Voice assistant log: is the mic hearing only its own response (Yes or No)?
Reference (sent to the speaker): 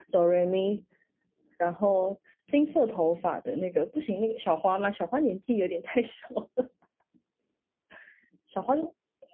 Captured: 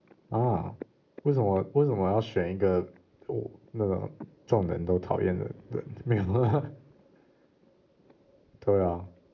No